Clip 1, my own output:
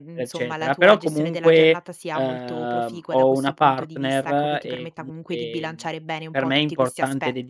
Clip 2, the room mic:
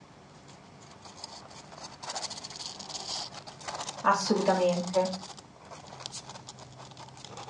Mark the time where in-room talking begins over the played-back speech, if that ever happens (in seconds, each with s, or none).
4.0 s